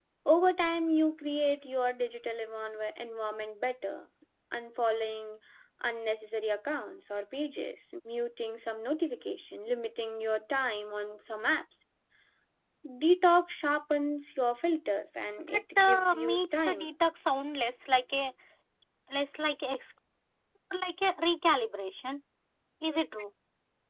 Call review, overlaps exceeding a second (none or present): present